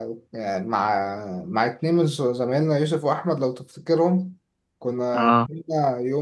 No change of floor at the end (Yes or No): Yes